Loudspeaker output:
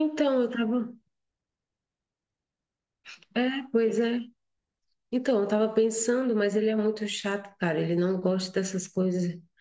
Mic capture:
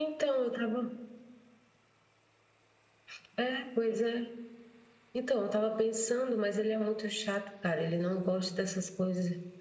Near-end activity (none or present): none